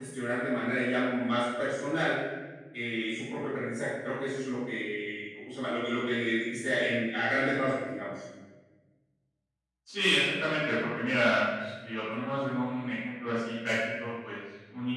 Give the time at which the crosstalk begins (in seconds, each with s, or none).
none